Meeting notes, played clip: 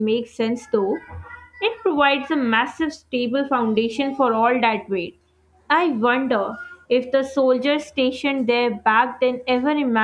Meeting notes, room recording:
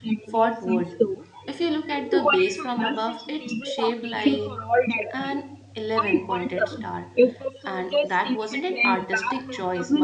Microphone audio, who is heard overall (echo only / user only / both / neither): both